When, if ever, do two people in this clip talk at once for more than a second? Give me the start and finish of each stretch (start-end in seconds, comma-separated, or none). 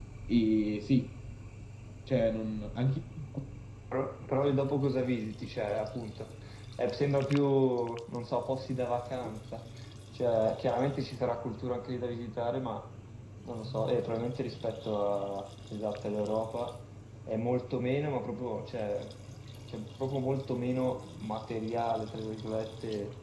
none